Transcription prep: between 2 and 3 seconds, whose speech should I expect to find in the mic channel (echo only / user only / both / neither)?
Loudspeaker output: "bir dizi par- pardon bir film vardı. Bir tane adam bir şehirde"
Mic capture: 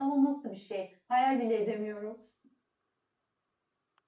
user only